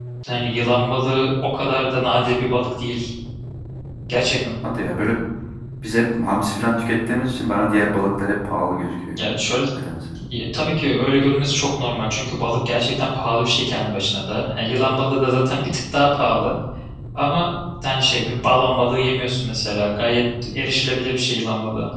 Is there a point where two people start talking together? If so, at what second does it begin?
none

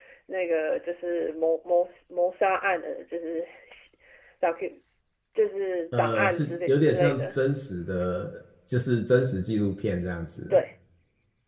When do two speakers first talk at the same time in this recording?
6.0 s

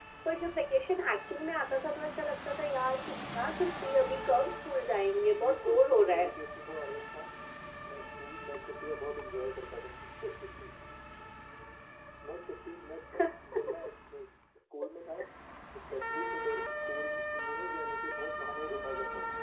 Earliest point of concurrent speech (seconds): 4.7 s

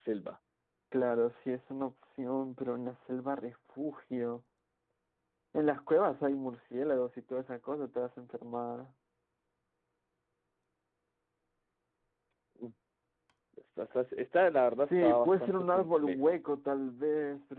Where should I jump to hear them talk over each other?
14.8 s

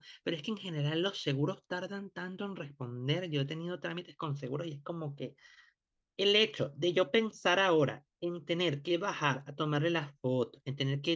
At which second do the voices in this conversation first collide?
none

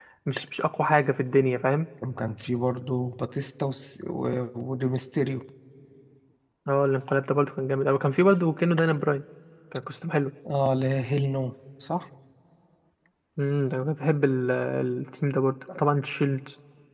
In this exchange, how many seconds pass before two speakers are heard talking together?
none

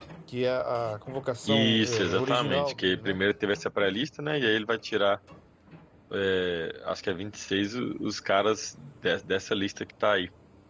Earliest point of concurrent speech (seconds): 1.4 s

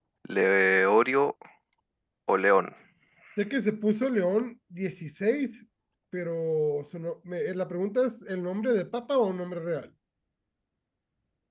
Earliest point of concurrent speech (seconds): none

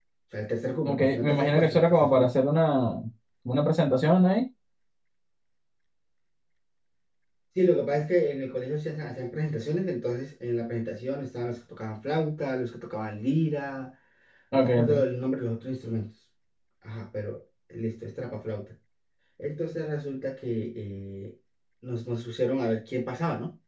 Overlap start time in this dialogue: 0.8 s

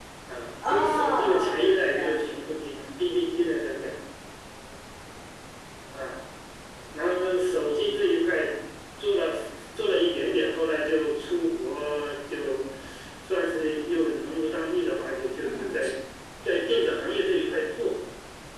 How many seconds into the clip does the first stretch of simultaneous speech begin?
0.7 s

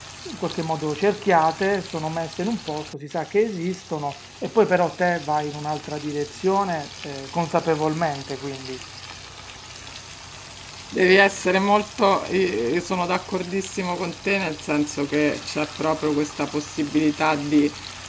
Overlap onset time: none

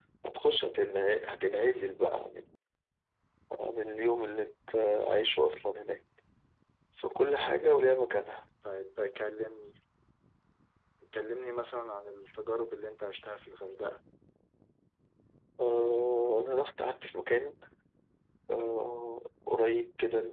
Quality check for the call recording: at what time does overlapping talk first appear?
none

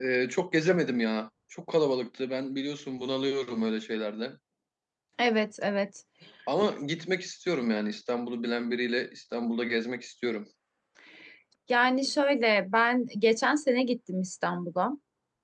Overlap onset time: none

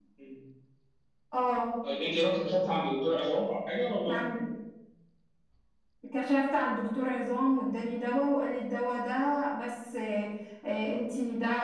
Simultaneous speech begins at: none

